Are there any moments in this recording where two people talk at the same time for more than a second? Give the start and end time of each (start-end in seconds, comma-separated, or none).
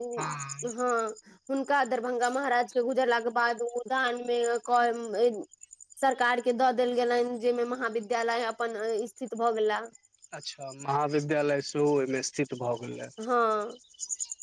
none